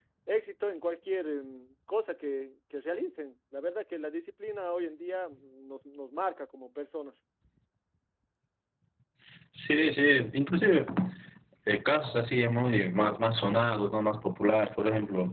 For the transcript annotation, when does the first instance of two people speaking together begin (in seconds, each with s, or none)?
none